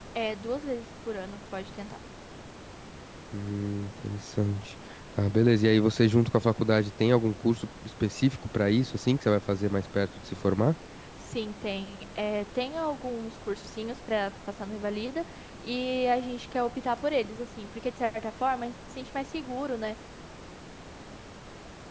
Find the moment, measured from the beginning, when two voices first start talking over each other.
none

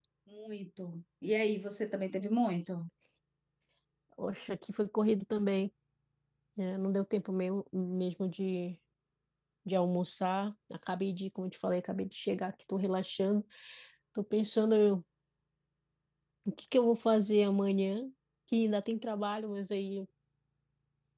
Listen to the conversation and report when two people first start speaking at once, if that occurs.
none

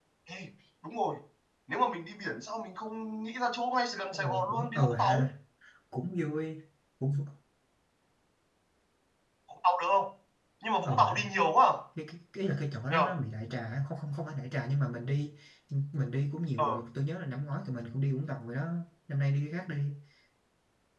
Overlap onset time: 4.1 s

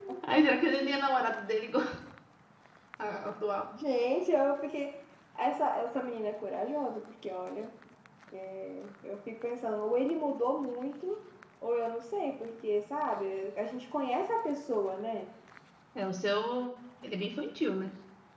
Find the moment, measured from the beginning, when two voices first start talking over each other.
none

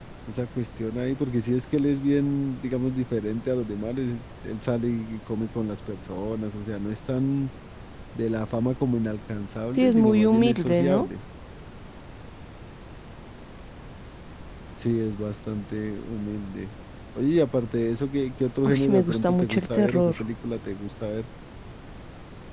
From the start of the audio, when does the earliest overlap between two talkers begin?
9.7 s

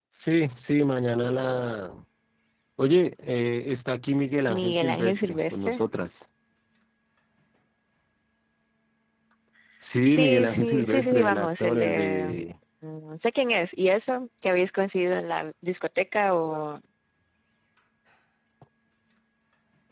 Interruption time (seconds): 4.5 s

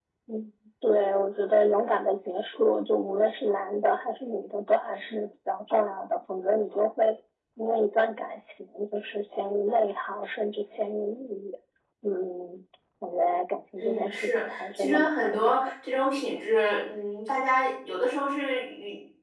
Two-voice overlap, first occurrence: 13.8 s

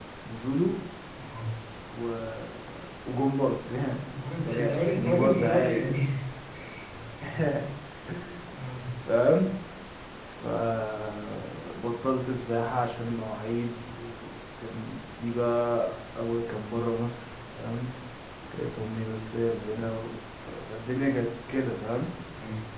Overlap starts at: 4.2 s

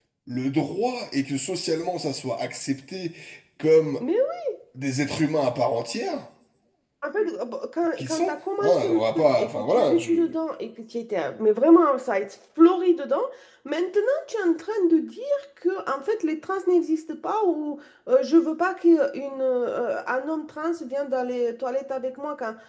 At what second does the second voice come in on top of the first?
8.0 s

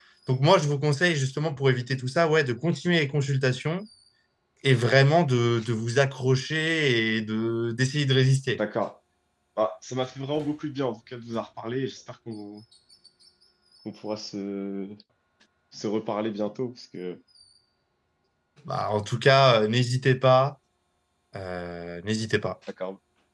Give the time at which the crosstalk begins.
none

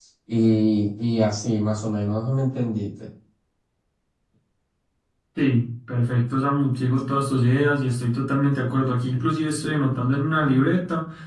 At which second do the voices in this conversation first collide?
none

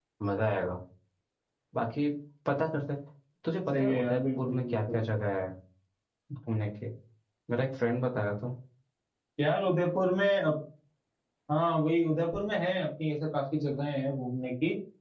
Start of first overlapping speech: 3.7 s

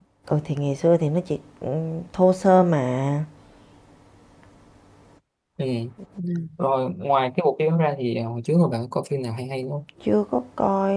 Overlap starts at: none

